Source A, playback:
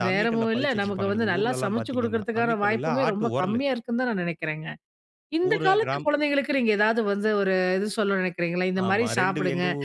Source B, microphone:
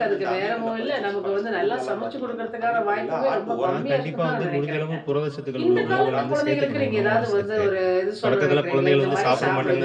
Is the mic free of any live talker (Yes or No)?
No